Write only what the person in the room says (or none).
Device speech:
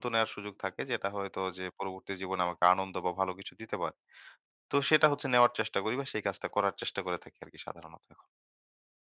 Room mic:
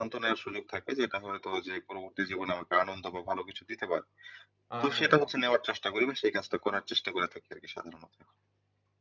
আসলেই।